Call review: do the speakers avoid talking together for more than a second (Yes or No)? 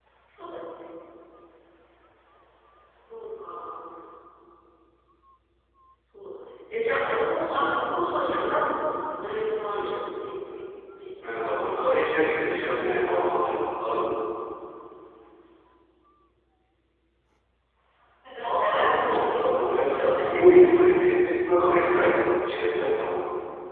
No